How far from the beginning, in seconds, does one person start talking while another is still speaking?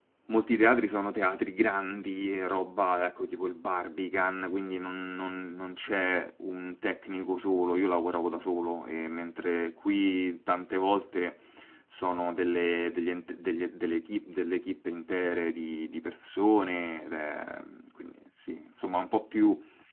none

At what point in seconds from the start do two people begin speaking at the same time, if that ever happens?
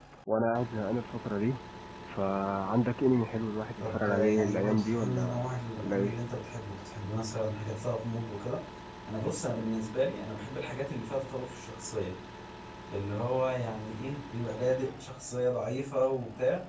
4 s

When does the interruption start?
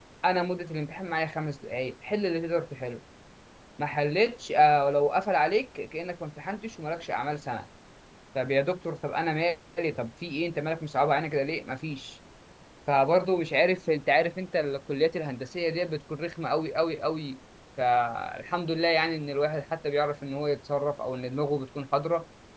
none

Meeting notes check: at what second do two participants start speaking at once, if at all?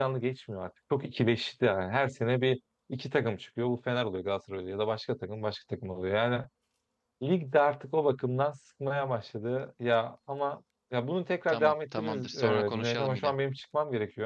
11 s

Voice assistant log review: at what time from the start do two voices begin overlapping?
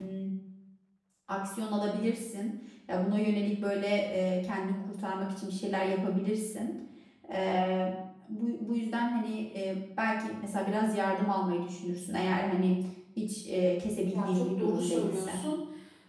14 s

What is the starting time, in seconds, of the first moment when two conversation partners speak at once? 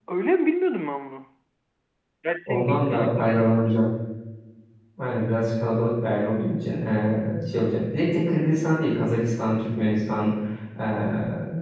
2 s

